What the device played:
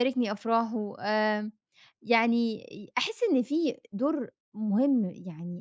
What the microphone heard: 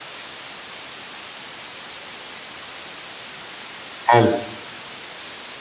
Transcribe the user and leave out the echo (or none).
حلو.